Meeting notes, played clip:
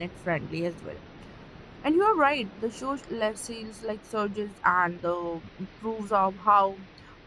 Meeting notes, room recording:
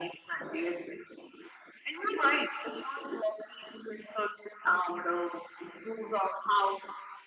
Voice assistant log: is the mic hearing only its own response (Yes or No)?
Yes